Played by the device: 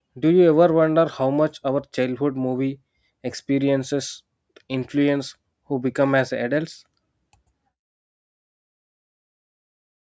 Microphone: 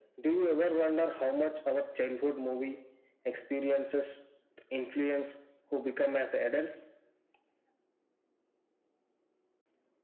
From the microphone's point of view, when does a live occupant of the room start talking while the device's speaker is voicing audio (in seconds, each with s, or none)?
none